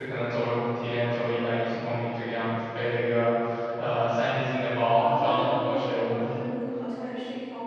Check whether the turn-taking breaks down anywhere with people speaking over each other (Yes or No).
Yes